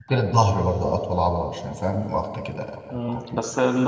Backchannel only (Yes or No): No